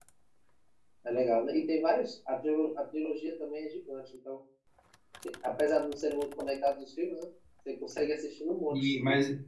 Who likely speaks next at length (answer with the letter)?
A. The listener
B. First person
A